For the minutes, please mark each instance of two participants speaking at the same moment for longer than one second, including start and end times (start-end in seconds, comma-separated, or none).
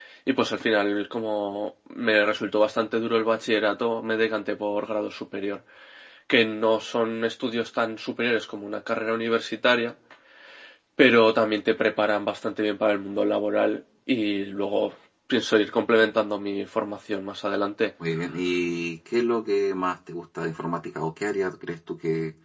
none